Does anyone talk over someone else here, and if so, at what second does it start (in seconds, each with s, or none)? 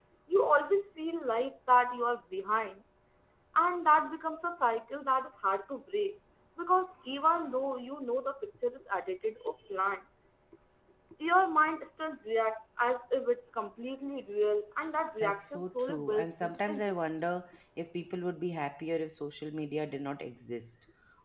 15.2 s